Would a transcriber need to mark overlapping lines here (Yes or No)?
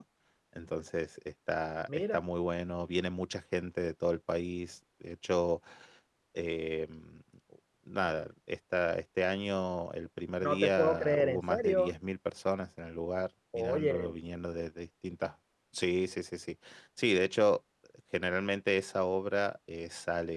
Yes